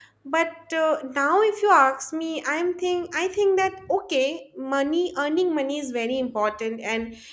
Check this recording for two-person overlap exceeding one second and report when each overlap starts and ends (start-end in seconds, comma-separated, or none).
none